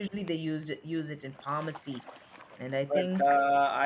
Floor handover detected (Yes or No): Yes